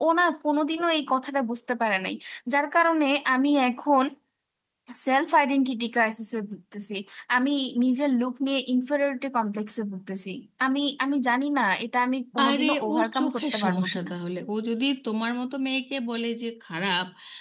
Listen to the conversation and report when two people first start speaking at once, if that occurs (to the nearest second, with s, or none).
12 s